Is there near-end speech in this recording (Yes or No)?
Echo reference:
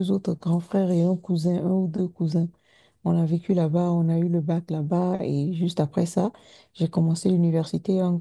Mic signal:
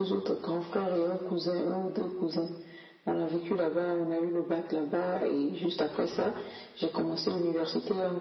No